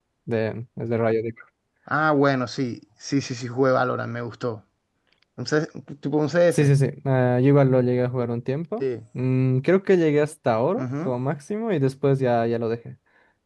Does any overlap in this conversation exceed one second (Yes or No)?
No